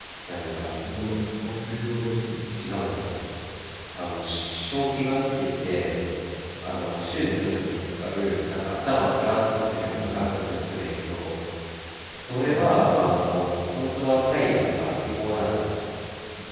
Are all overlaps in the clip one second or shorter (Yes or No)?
Yes